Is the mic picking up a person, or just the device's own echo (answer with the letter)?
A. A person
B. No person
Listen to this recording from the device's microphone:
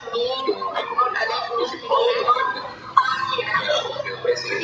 A